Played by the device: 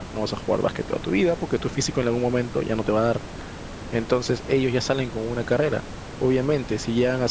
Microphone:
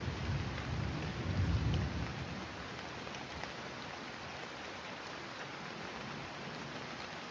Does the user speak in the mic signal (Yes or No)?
No